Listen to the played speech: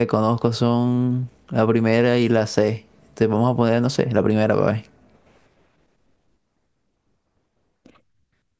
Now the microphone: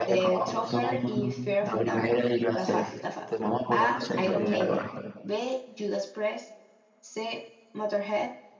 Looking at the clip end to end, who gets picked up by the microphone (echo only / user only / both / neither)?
both